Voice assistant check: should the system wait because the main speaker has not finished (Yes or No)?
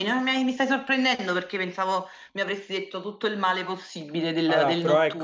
No